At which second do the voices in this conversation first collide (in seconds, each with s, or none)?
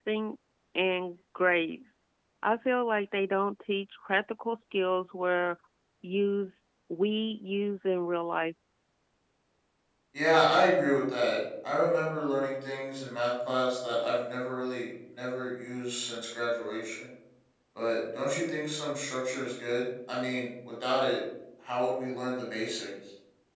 none